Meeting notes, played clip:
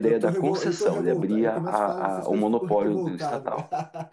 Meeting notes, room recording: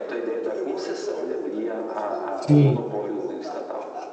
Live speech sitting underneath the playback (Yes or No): No